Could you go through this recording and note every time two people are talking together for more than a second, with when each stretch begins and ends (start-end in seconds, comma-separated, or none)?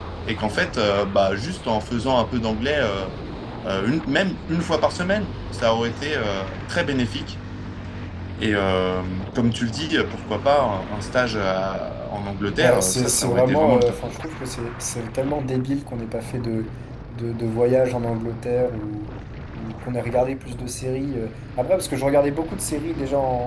12.6-14.0